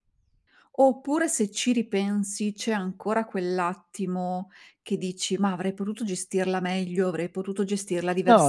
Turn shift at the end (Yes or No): Yes